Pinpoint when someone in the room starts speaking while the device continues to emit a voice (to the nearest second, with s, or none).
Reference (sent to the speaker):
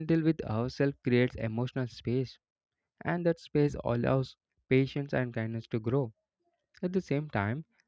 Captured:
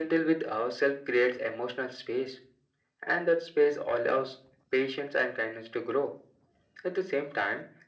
none